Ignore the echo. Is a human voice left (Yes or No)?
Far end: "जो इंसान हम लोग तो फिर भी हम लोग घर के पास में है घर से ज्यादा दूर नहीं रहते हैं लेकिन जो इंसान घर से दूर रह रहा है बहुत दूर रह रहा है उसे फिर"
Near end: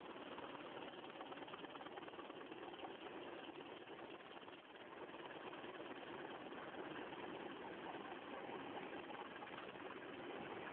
No